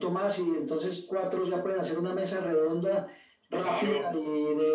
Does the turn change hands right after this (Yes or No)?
No